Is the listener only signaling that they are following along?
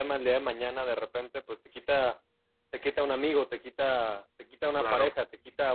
Yes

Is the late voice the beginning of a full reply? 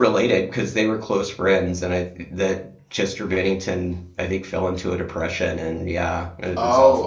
Yes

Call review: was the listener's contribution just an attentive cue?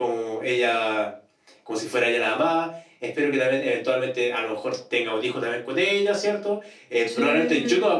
Yes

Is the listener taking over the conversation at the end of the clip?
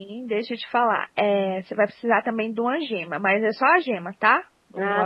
No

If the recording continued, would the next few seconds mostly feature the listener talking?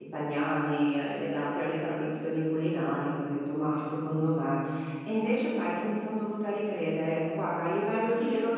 No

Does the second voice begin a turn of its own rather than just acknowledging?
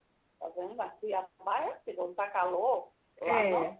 No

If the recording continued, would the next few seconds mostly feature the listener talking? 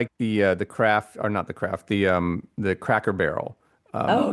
Yes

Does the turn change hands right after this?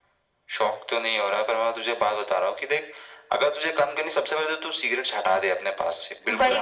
Yes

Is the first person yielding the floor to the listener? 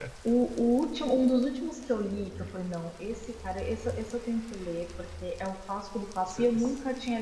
No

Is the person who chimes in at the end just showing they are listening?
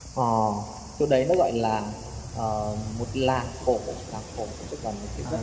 Yes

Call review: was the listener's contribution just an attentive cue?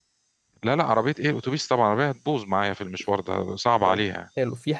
No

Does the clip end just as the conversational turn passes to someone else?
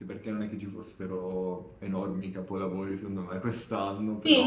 Yes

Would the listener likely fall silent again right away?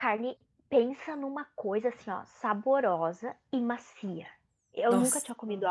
Yes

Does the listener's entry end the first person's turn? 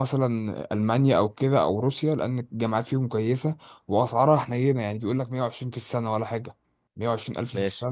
No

